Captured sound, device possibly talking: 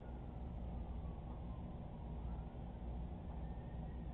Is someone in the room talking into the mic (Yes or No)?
No